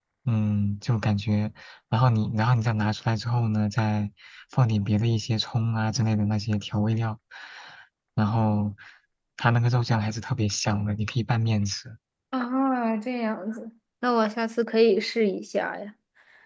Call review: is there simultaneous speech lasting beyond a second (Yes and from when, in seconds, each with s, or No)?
No